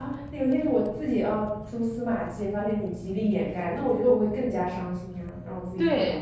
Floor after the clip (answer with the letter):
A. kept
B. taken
B